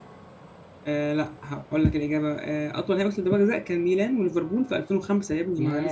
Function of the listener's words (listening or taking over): taking over